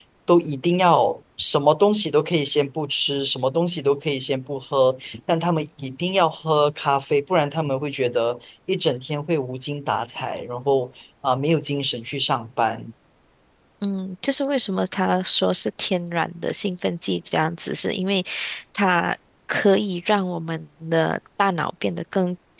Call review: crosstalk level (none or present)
none